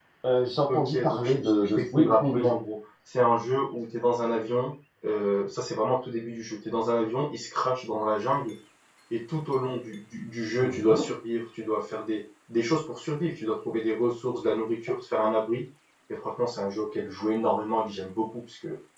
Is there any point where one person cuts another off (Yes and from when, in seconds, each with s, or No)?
Yes, from 0.7 s